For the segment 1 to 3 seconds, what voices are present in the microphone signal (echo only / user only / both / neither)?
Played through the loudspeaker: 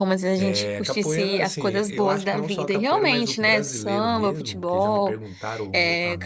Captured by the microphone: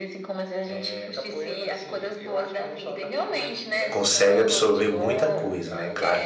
echo only